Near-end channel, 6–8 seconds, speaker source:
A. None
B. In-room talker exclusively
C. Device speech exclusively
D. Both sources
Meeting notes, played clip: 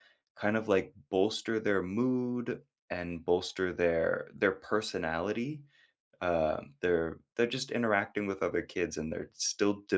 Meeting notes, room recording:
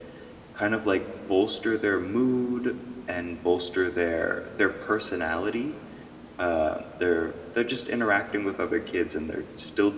C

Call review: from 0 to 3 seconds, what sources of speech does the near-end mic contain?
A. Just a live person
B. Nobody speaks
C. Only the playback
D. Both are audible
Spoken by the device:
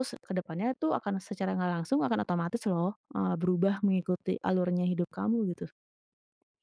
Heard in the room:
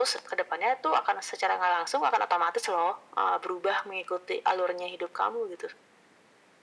C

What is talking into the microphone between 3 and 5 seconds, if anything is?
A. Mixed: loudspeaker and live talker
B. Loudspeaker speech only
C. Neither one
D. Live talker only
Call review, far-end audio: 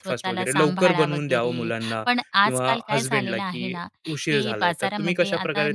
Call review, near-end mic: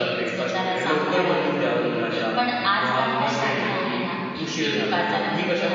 B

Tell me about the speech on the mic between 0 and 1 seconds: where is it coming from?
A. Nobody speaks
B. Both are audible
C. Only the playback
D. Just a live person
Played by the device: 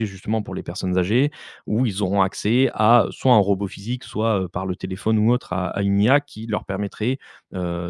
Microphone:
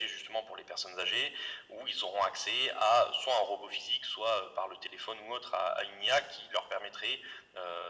C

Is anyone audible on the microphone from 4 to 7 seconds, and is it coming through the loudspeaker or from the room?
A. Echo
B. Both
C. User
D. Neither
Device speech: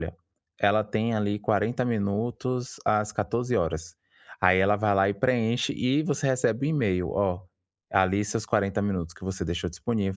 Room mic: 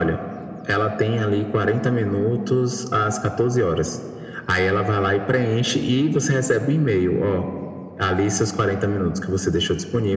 A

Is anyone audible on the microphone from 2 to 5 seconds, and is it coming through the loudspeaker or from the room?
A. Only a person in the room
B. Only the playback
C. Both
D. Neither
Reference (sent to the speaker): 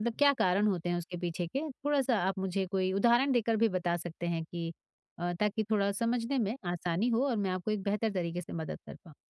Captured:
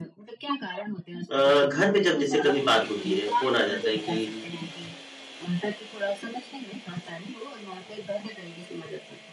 C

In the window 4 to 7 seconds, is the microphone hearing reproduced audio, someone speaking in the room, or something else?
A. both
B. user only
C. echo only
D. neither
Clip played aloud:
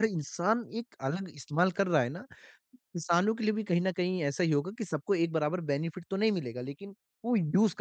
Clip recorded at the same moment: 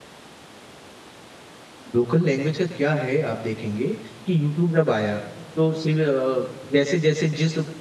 B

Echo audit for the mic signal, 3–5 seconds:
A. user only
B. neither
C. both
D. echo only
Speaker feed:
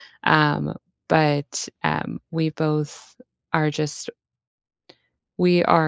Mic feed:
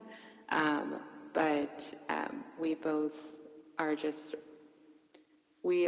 D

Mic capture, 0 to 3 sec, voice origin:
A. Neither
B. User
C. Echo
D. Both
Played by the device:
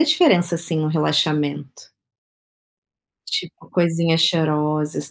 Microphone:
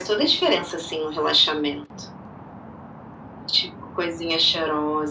C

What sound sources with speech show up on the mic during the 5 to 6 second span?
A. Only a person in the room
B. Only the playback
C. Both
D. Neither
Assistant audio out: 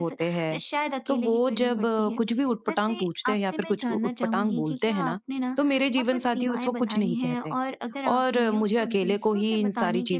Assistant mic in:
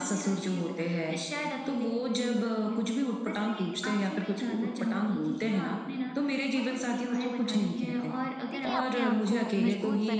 B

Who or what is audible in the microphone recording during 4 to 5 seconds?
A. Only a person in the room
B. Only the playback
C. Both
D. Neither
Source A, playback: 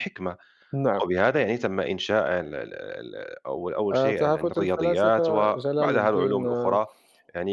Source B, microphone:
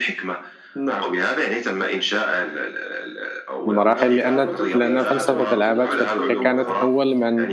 C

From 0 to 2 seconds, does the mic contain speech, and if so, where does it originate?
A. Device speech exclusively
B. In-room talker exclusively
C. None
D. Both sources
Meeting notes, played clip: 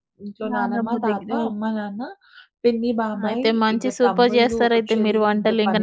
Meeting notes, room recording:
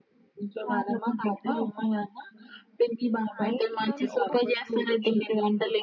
A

